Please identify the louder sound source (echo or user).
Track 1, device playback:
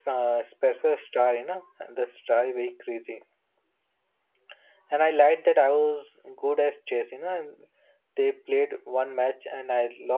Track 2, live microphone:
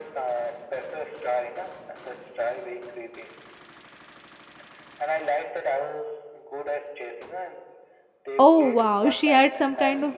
user